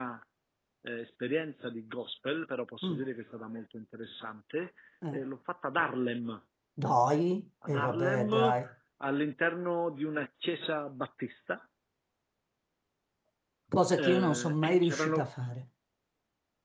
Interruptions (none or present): present